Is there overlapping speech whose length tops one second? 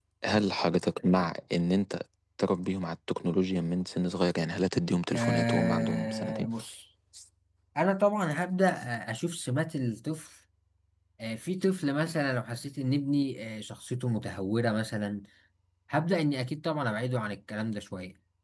Yes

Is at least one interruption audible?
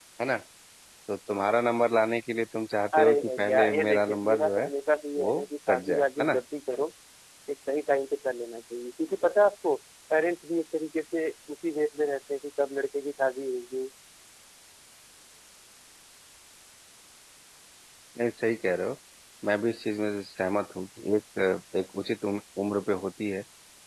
Yes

